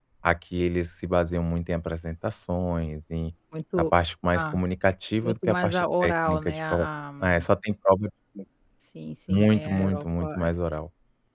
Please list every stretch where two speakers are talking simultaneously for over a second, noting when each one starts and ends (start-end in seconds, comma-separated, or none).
5.2-6.8, 9.3-10.5